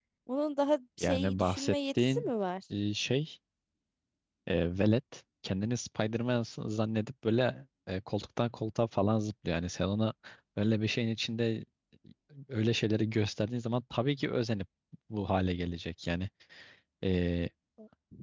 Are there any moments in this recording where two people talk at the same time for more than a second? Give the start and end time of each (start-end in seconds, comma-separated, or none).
1.0-2.3